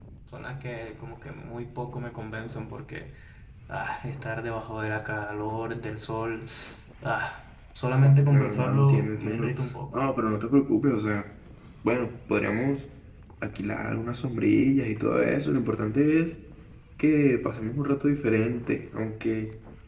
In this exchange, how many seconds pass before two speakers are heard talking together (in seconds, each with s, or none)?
8.0 s